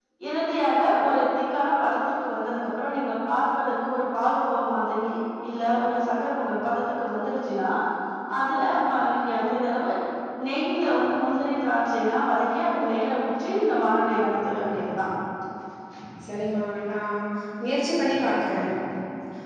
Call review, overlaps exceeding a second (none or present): none